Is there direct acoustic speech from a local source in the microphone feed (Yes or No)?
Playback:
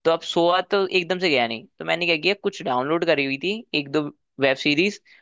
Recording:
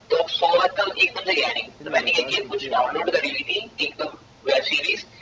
Yes